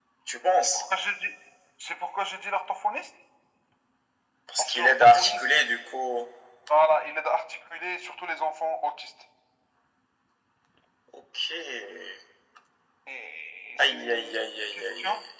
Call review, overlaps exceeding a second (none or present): present